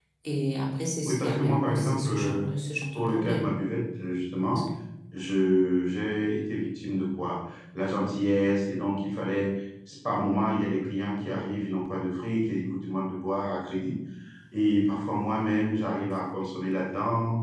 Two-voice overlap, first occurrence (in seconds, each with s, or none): 1.1 s